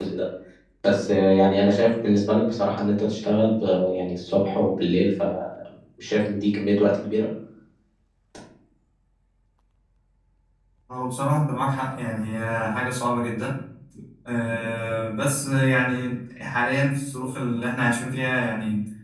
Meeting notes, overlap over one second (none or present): none